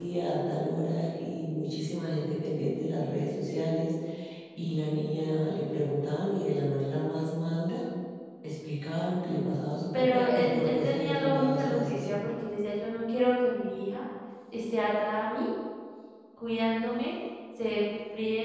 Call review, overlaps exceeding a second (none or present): present